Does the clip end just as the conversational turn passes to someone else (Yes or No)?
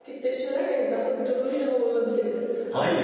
Yes